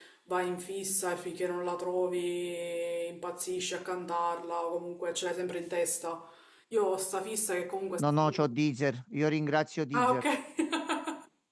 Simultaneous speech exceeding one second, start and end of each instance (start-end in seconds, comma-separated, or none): none